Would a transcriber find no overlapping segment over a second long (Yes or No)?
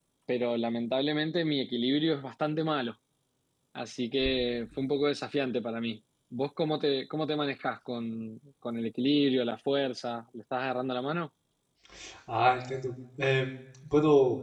Yes